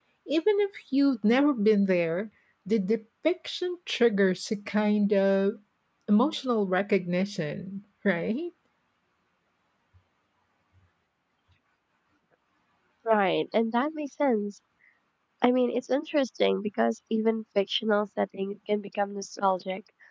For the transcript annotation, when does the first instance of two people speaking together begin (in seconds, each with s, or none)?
none